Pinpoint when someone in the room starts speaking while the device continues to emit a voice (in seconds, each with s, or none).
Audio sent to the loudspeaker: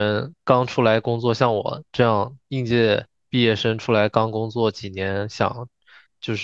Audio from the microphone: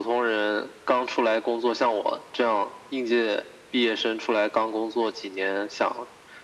none